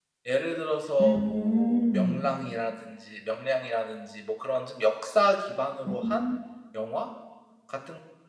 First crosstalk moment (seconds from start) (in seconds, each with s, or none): 1.0 s